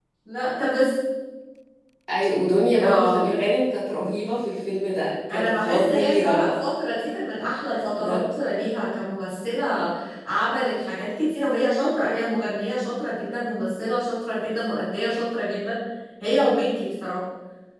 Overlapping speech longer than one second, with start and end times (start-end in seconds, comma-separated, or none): 5.3-6.5